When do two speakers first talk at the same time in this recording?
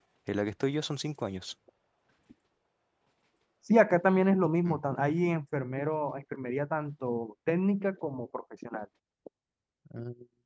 none

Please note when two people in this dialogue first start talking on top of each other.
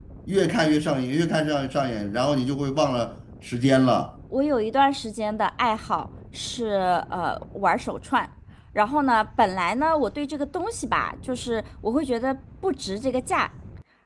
none

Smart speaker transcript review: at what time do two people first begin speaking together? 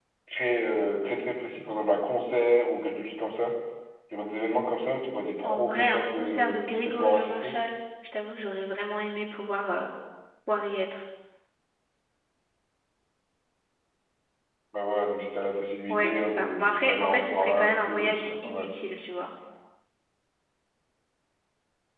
5.4 s

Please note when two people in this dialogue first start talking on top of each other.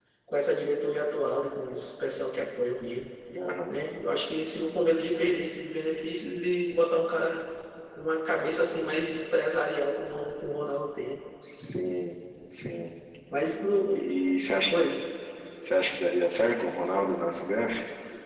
none

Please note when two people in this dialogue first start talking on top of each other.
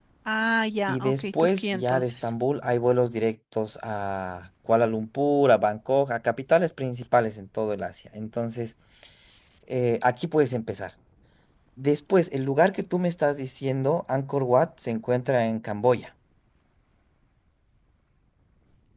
0.9 s

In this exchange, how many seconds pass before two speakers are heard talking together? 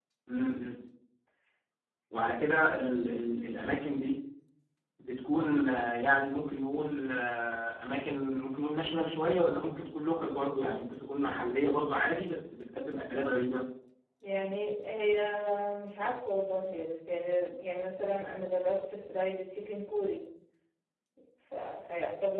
none

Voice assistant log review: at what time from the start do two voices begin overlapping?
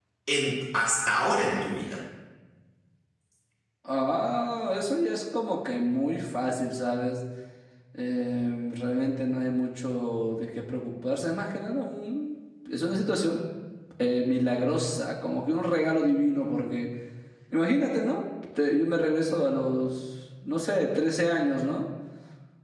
none

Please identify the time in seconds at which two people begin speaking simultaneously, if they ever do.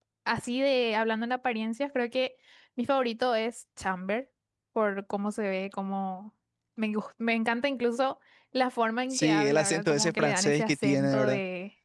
9.1 s

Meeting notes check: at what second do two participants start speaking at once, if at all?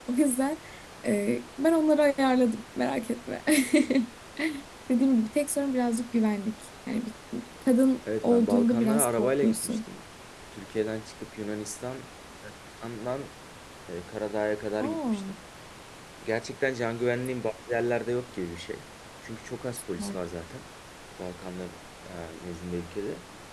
8.2 s

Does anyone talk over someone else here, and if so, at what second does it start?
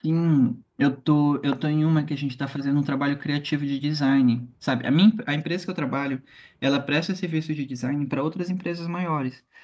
none

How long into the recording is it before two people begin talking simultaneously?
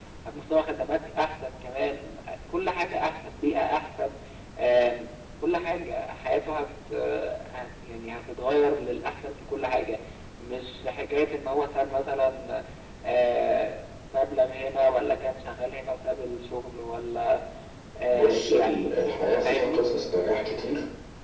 18.1 s

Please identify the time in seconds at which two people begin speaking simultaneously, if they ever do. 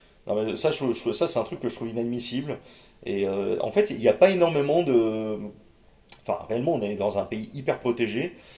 none

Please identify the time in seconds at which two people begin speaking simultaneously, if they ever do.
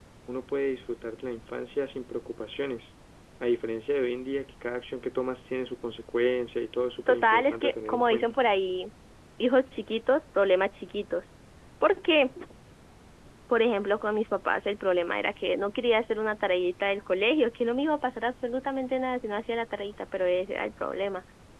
7.1 s

